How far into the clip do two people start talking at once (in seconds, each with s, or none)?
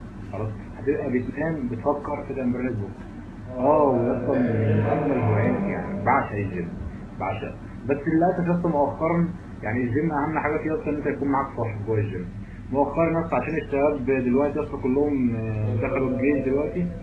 3.6 s